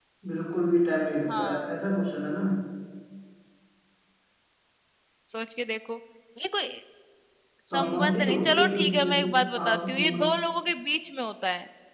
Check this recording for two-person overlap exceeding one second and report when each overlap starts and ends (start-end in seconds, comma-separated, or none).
7.7-10.3